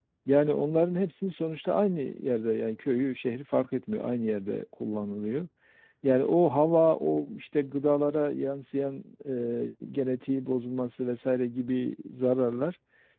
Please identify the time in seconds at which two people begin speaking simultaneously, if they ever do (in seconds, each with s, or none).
none